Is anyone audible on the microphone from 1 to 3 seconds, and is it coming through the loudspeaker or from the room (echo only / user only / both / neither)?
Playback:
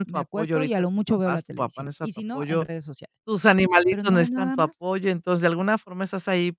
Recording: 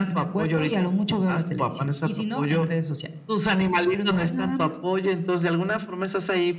echo only